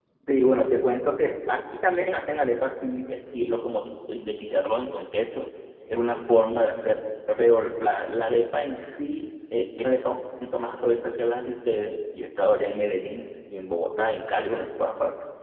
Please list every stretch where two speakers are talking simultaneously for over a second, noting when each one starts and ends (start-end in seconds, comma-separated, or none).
none